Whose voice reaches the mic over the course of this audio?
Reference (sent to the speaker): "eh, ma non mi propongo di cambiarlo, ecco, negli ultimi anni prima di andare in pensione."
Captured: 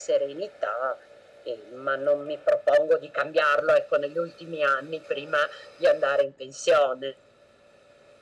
echo only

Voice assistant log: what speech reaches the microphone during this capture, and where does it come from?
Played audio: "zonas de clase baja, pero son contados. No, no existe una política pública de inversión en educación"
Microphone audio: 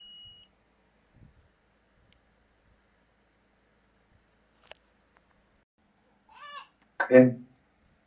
user only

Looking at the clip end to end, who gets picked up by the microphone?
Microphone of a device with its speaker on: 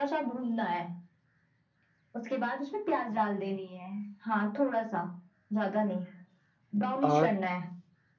both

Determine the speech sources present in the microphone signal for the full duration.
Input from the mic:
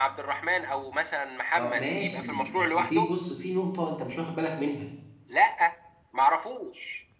both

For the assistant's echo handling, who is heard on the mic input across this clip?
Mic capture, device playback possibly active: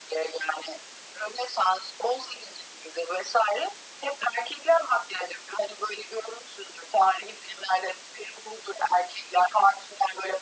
echo only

